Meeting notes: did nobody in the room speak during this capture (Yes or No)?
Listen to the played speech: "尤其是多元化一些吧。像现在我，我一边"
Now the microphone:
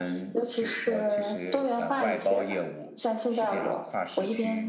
No